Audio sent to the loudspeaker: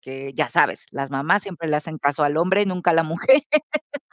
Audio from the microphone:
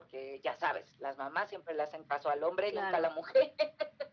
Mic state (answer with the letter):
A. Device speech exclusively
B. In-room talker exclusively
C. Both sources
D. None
C